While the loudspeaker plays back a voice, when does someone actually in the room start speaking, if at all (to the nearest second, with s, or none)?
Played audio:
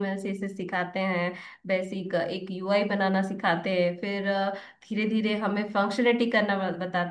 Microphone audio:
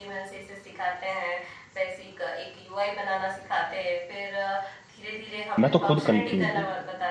6 s